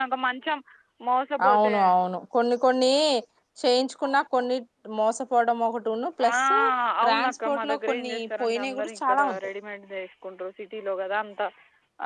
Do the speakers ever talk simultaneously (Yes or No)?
Yes